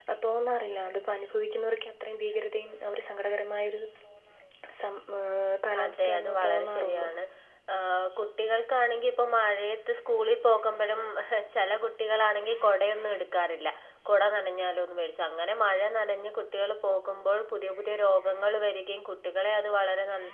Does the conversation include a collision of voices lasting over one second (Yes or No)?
Yes